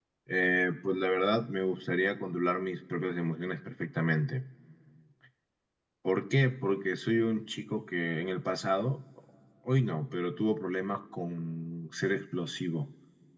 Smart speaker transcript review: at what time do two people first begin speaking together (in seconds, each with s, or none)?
none